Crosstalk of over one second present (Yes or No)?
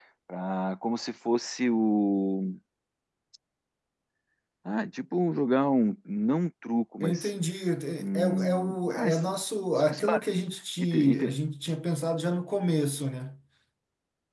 Yes